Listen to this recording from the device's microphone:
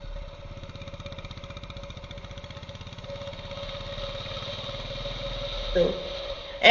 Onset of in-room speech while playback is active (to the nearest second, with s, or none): 6 s